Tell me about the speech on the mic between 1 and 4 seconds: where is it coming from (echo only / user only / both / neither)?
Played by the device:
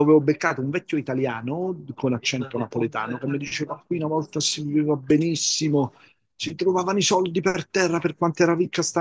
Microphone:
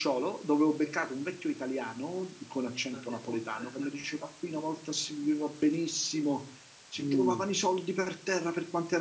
echo only